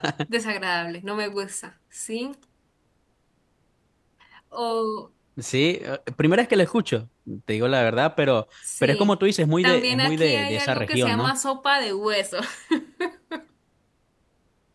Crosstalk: present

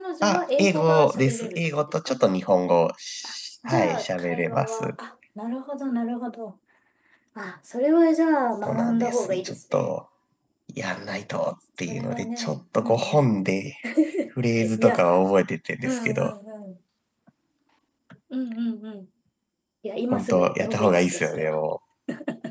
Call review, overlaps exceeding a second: present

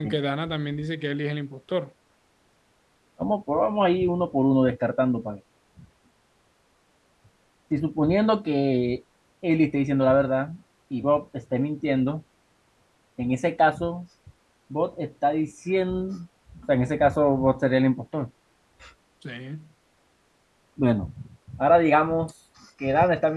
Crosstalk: none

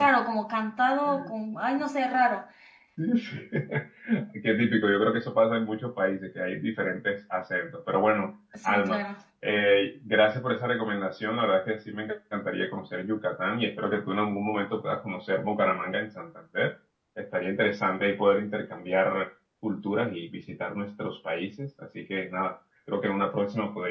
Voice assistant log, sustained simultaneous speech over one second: none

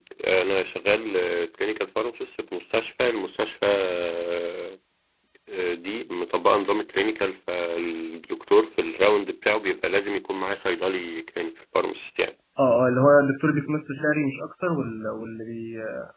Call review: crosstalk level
none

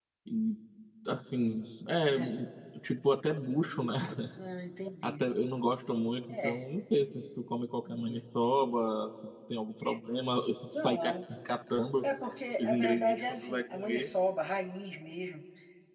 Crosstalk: present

